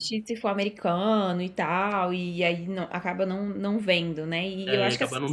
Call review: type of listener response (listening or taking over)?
taking over